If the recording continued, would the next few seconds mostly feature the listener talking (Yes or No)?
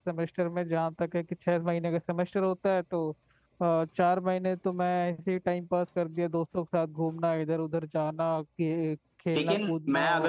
Yes